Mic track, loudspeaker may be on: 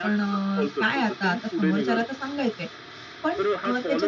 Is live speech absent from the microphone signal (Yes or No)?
No